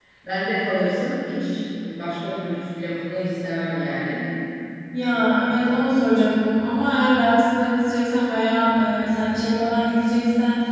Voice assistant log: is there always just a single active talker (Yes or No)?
Yes